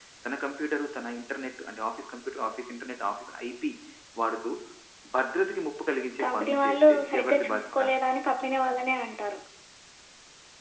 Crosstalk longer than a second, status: present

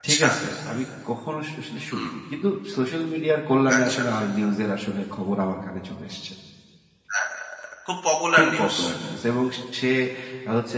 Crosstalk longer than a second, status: none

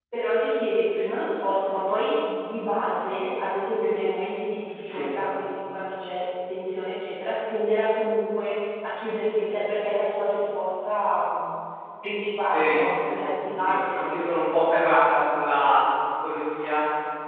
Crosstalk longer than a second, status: present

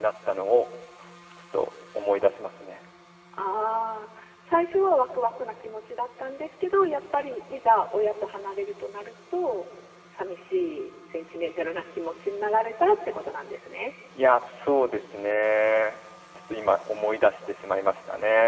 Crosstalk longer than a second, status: none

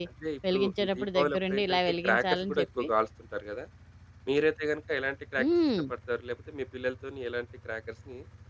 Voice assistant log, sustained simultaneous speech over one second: present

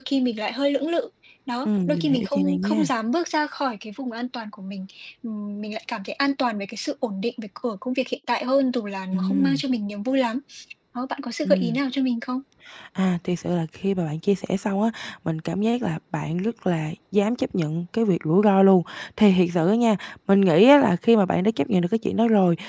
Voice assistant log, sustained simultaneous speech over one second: present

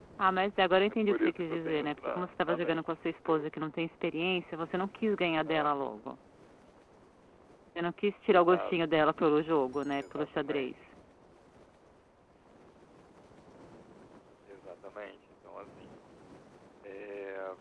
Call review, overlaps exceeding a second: present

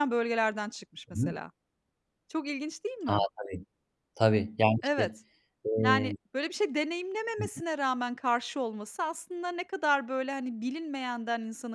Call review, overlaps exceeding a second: none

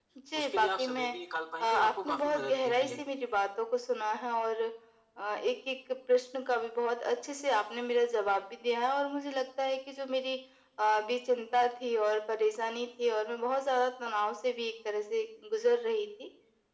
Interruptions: present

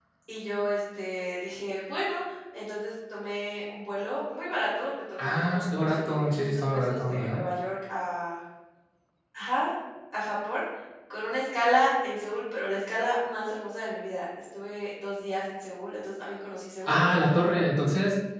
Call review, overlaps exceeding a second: present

